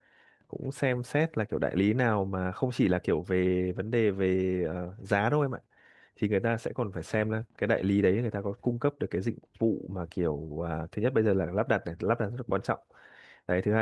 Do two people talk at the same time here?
No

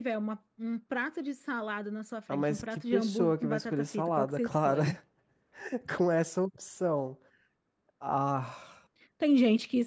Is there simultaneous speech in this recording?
Yes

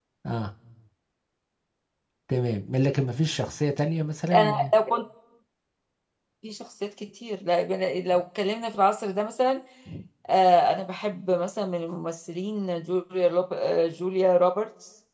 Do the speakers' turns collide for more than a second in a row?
No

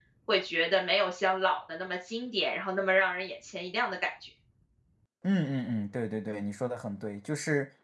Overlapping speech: No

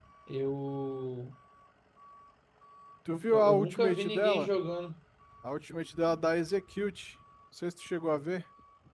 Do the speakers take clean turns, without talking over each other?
No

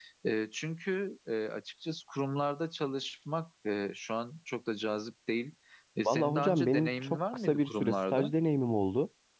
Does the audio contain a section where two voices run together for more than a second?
Yes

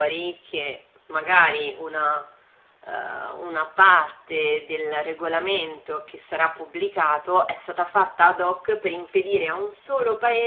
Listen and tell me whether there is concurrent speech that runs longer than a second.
No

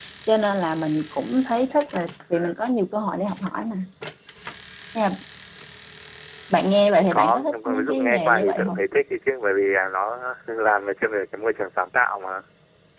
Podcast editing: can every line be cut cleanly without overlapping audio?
No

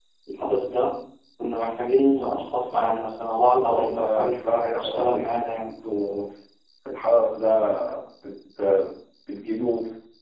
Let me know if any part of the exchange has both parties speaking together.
Yes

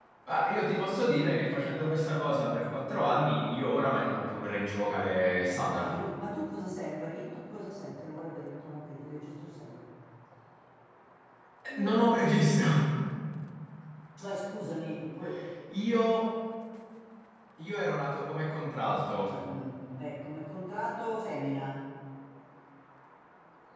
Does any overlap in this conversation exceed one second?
No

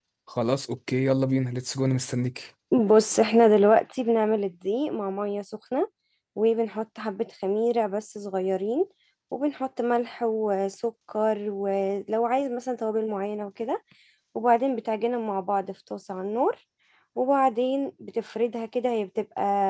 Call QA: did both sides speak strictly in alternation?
Yes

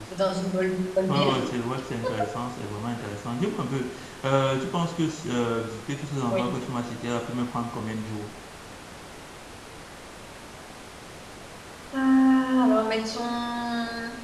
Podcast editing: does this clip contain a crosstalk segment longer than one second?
No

